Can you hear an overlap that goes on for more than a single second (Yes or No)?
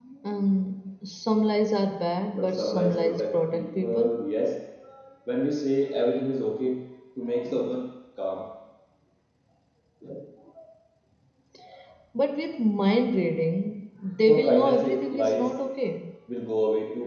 Yes